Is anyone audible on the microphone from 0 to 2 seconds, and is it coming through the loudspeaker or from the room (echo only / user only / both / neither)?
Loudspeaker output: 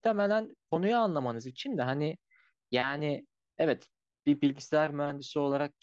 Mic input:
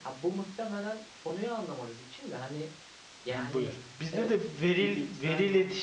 echo only